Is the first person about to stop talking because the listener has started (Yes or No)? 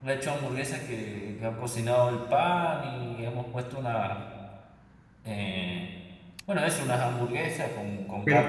Yes